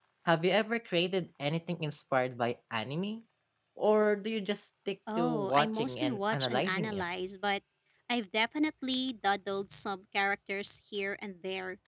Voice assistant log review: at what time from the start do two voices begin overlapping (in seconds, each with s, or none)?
5.1 s